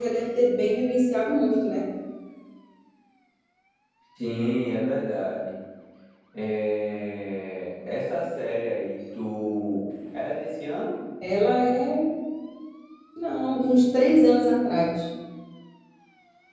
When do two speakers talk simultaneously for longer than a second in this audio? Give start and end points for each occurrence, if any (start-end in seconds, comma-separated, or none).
none